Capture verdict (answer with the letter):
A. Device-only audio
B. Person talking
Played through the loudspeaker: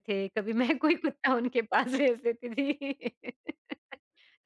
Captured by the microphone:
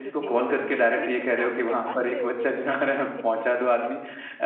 B